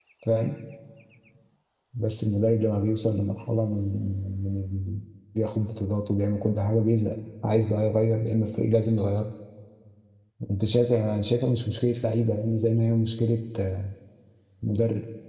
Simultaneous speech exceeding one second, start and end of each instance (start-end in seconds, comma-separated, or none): none